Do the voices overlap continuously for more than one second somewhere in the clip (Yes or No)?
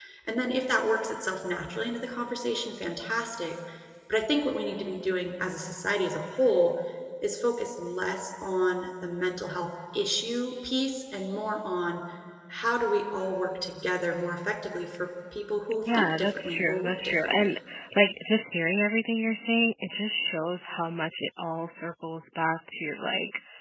Yes